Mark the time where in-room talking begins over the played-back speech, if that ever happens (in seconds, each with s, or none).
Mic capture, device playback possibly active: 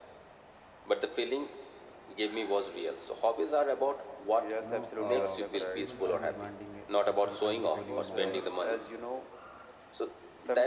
4.6 s